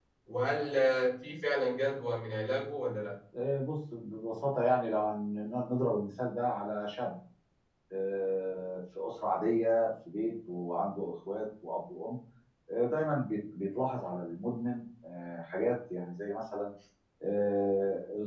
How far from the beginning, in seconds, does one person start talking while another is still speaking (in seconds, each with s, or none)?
none